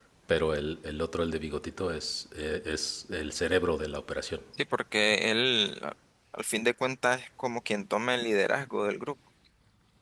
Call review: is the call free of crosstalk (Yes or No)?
Yes